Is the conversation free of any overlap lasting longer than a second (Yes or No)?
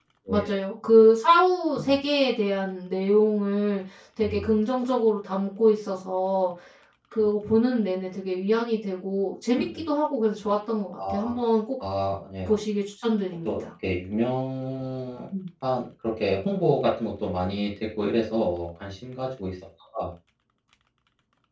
Yes